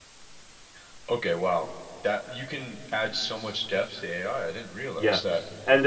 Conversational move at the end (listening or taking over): taking over